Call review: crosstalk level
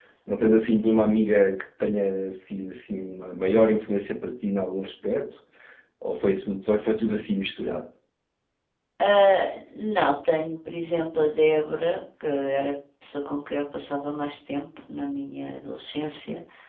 none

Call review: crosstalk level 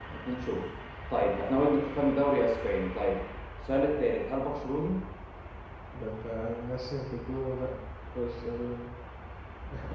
none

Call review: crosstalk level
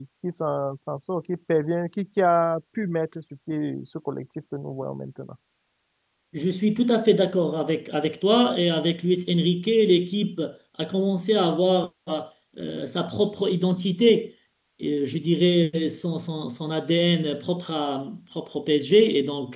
none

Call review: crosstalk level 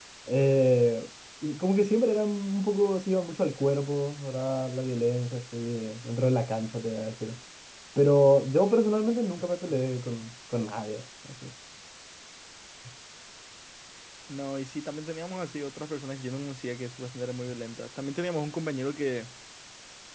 none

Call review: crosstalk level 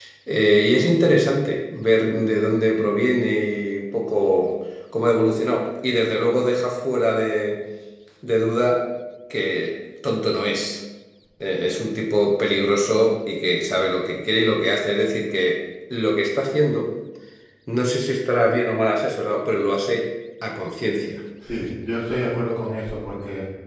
none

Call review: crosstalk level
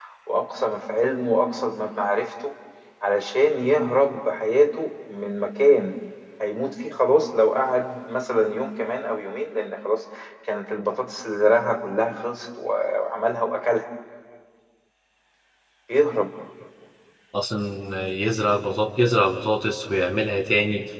none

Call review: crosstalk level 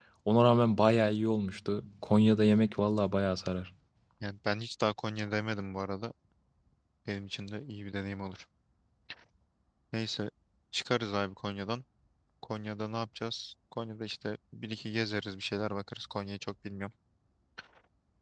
none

